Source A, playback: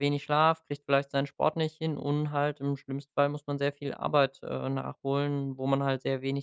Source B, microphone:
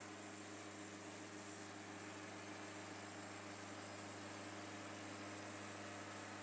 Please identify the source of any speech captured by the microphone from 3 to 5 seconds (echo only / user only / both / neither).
neither